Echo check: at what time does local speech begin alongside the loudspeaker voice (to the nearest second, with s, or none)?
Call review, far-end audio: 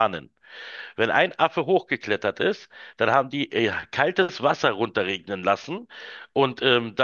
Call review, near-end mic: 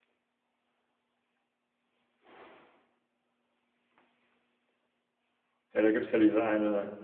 6 s